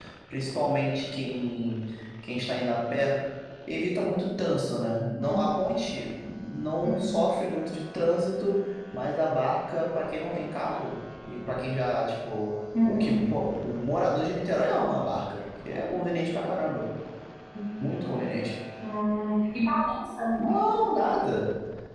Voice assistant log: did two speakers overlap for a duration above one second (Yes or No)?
No